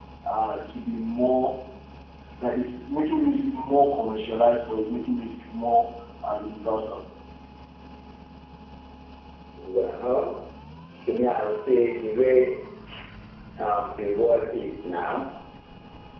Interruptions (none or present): none